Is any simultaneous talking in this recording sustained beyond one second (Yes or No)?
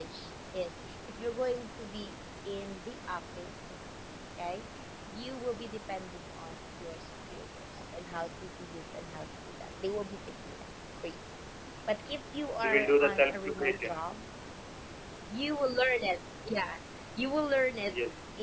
Yes